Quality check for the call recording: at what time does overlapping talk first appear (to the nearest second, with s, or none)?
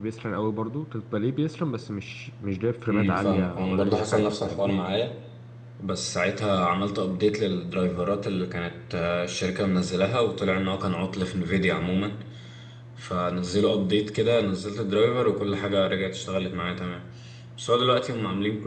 3 s